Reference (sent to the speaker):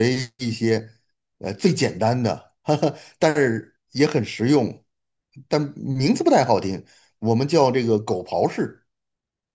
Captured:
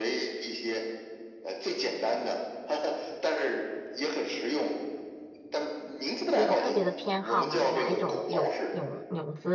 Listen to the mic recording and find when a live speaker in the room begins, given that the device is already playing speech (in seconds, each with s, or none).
6.2 s